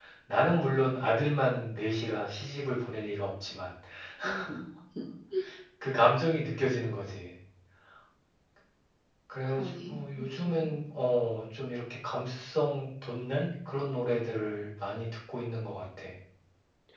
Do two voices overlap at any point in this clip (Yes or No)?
Yes